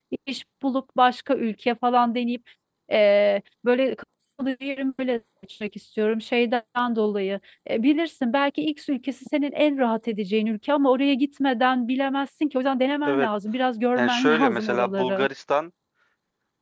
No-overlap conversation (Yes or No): No